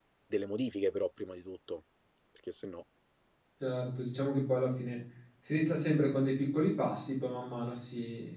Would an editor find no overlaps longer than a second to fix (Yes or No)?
Yes